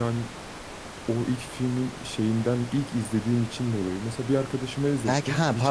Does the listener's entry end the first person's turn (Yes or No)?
Yes